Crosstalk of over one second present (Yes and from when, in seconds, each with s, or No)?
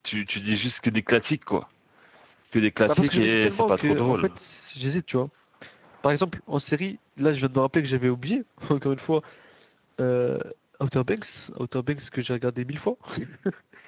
Yes, from 2.9 s